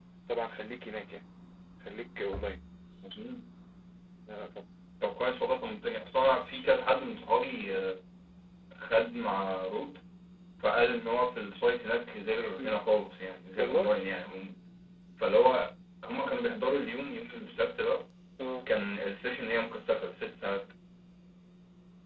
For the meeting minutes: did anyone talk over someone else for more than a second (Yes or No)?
No